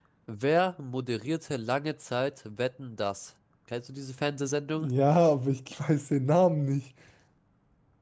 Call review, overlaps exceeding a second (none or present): none